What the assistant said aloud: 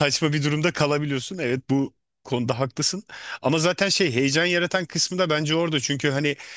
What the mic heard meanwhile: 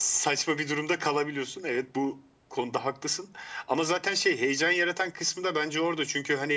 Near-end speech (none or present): none